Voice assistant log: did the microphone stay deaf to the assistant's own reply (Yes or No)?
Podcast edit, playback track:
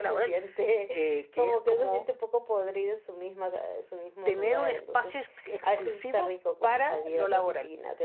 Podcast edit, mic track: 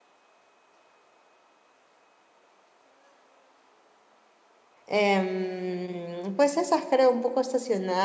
Yes